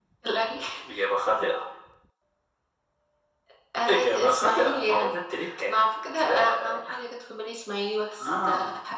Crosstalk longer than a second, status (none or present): present